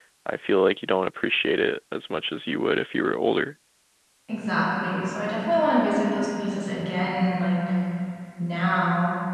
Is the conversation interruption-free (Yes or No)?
Yes